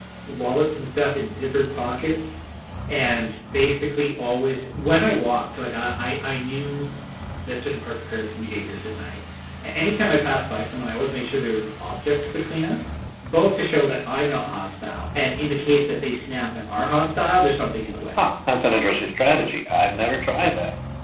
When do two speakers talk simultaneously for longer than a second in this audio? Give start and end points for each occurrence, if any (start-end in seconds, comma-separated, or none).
none